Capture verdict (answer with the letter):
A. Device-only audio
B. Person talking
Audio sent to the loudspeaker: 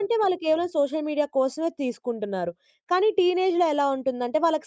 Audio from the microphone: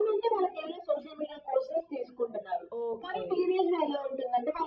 B